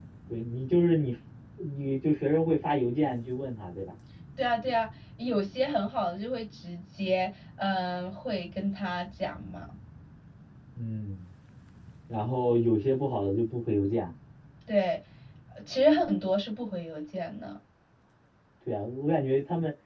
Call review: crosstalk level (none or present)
none